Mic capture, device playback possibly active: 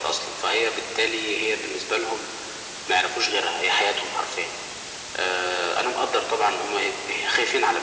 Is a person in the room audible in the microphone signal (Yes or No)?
No